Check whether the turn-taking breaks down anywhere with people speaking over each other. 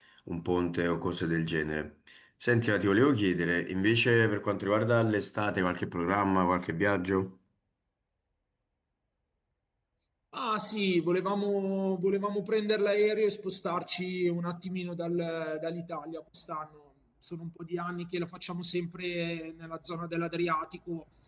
No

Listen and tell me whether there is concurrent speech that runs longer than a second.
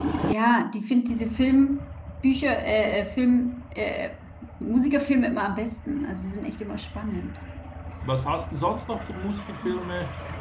No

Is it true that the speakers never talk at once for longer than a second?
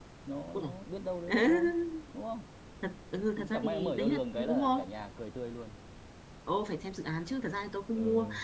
No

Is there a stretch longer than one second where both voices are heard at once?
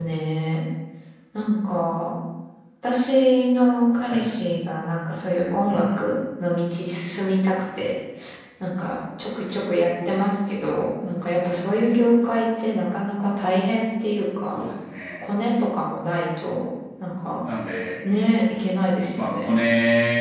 No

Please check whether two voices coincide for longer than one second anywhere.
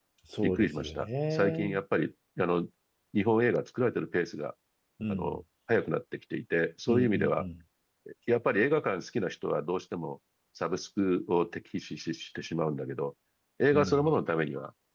Yes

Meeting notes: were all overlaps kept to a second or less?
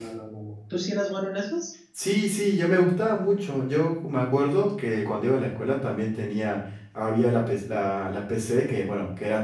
Yes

